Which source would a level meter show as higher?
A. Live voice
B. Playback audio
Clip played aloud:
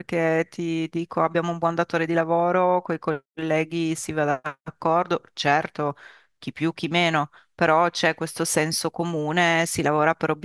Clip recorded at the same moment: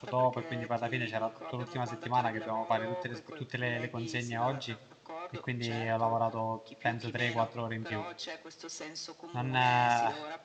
A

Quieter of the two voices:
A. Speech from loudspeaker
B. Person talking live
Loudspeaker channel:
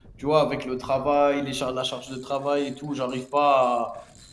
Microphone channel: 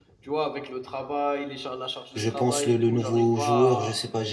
A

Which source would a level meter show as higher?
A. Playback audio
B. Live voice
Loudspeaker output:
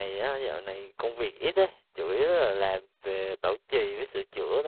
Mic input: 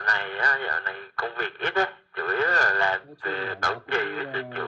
A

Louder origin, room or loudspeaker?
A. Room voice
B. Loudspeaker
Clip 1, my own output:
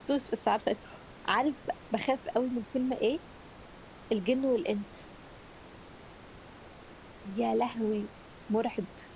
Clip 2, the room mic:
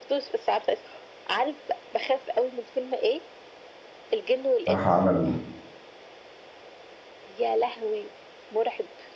A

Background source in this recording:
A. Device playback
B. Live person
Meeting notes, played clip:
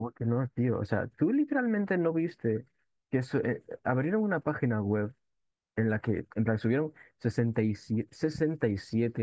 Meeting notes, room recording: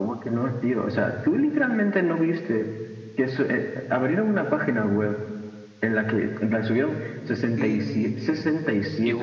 B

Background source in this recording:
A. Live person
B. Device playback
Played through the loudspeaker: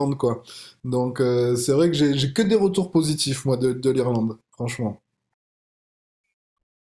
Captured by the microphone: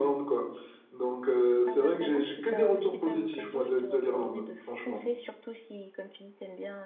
A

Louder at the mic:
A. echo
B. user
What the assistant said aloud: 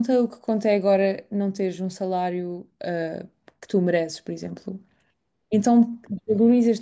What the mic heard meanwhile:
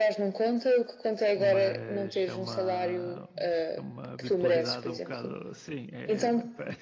A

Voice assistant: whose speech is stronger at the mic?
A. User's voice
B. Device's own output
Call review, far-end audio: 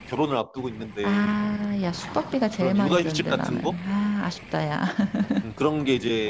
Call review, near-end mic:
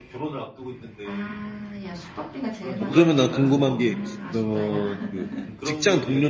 A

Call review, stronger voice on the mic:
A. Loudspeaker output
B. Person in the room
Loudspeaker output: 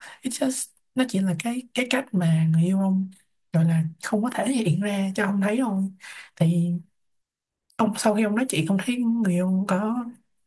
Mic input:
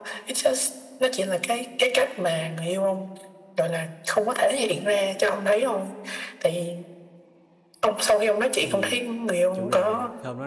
A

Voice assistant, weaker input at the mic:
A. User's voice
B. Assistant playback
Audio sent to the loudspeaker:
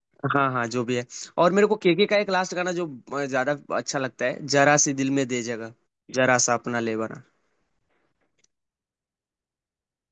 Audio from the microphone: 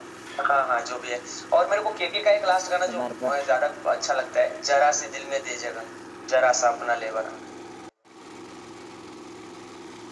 A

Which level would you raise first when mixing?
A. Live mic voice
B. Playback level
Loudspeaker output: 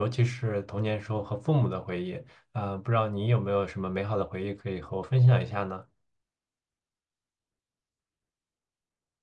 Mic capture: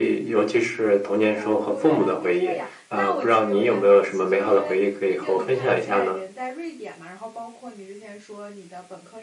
A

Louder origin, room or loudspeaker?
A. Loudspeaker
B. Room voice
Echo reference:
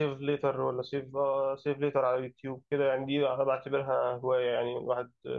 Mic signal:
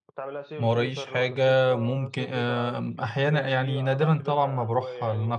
B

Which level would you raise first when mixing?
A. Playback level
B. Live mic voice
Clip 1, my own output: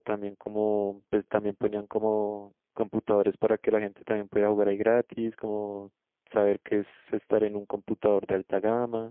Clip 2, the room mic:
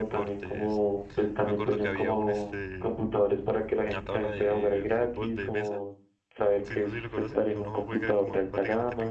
B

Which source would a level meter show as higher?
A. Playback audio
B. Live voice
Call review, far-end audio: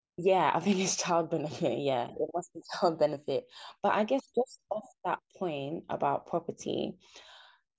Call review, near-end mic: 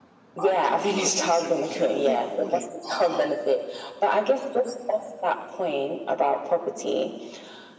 A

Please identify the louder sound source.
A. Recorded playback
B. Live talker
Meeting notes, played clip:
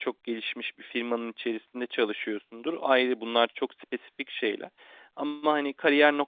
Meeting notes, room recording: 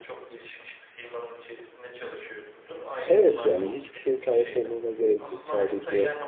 B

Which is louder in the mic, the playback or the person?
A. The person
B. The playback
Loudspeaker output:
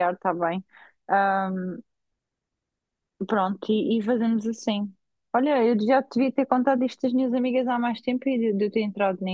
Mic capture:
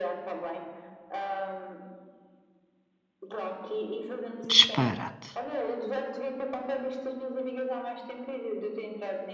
A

